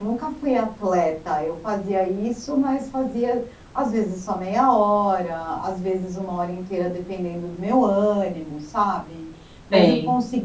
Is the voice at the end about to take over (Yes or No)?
No